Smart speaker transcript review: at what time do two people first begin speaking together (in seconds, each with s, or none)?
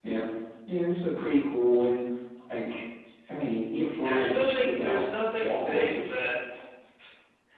4.0 s